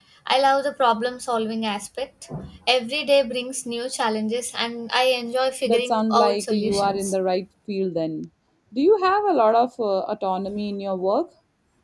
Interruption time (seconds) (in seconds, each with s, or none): 5.7 s